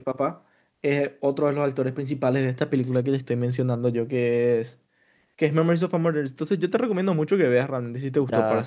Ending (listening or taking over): taking over